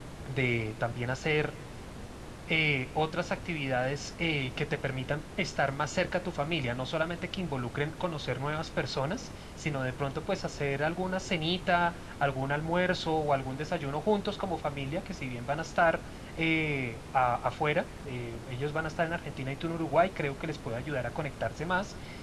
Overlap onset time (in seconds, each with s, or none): none